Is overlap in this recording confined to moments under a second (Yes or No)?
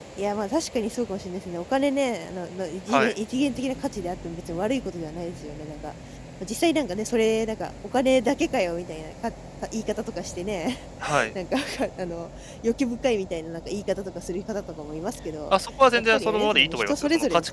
No